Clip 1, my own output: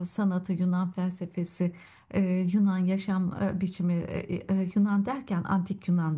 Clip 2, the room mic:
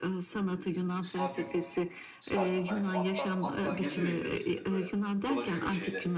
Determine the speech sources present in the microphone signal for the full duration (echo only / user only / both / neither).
both